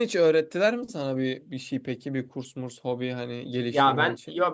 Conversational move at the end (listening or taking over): taking over